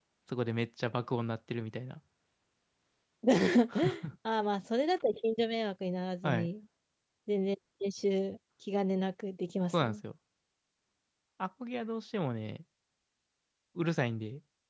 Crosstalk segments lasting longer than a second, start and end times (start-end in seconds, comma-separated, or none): none